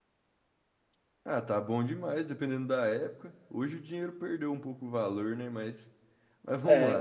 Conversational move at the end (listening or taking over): taking over